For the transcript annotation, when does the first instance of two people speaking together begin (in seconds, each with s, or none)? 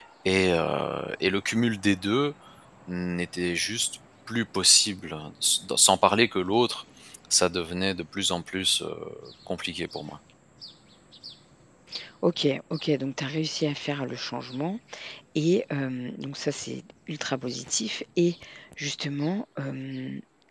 none